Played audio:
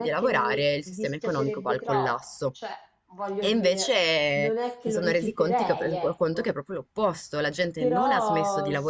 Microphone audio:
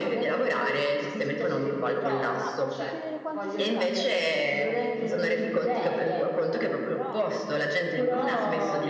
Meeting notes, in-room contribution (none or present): present